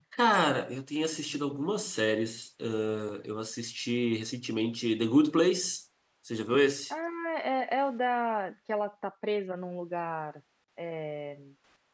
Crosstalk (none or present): none